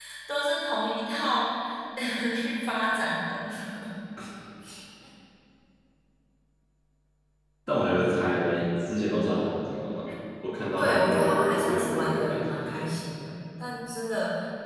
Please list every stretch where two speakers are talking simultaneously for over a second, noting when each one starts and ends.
10.8-12.7

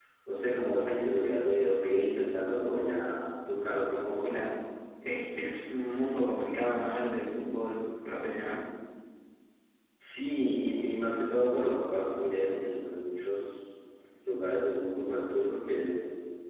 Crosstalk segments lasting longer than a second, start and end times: none

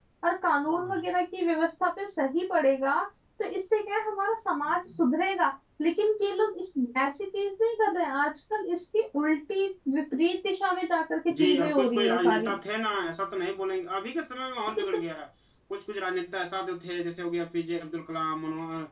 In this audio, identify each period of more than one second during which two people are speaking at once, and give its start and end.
11.3-12.6

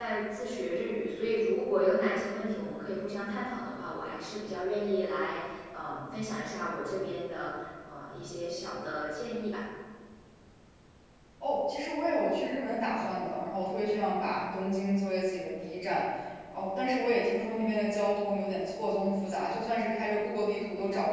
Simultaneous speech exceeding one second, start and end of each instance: none

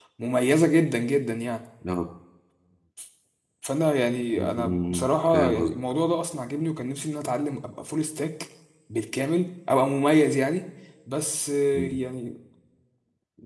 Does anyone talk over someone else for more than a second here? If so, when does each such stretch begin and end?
4.4-5.7

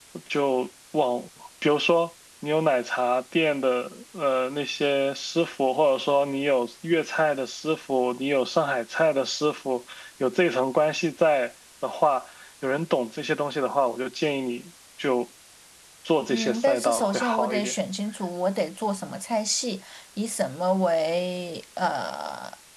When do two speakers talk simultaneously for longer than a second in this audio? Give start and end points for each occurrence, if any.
16.3-17.7

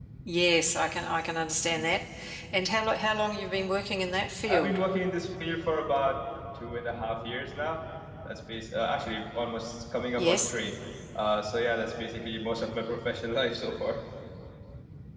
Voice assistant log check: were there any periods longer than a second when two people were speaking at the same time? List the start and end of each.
none

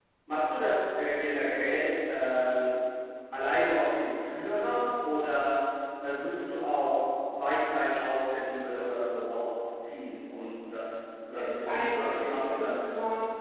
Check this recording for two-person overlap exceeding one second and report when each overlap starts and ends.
11.4-12.7

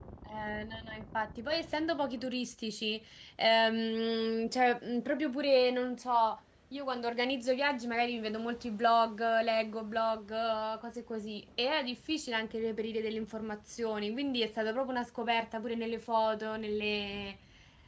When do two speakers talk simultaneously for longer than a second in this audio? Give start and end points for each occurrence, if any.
none

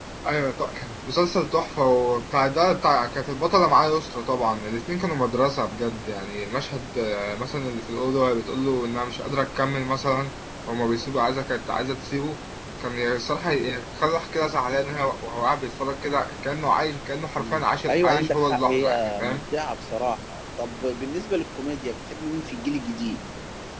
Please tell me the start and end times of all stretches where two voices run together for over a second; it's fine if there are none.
17.4-19.4

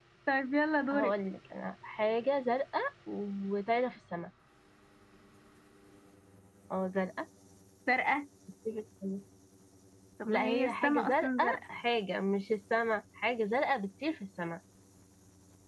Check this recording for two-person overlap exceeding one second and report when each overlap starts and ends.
10.3-11.6

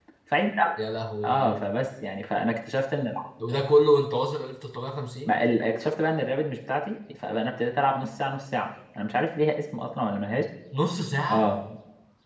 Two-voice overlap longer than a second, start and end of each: none

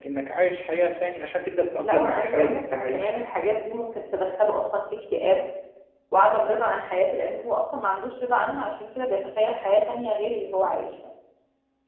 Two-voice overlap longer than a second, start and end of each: 1.8-3.2

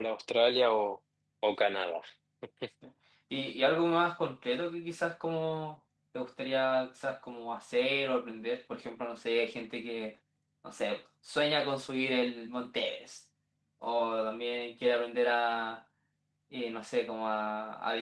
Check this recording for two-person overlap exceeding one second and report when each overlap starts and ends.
none

